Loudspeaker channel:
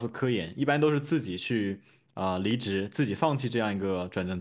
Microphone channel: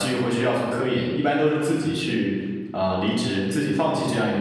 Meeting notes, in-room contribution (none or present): none